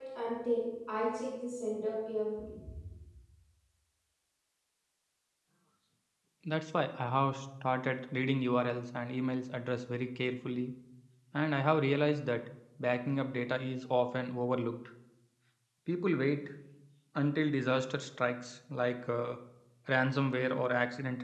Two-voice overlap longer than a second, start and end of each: none

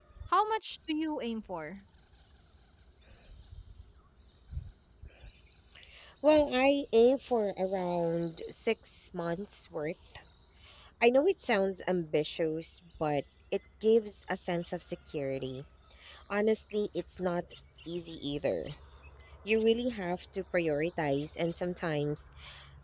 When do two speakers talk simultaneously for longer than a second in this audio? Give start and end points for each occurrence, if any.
none

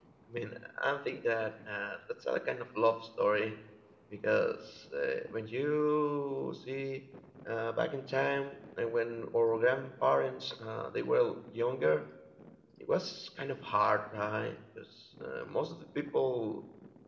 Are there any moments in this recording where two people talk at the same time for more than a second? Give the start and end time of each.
none

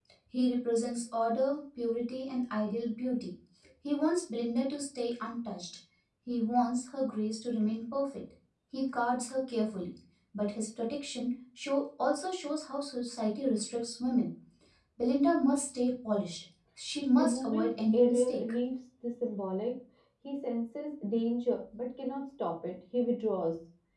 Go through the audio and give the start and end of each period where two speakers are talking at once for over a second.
17.1-18.4

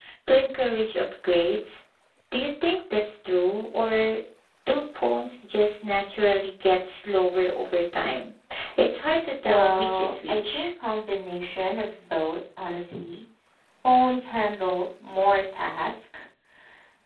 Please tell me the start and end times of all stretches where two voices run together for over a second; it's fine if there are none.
9.4-10.7

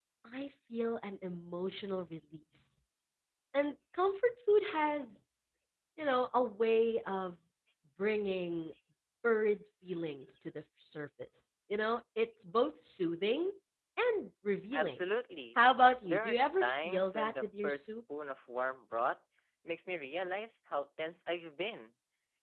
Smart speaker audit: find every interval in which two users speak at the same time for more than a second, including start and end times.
16.0-17.9

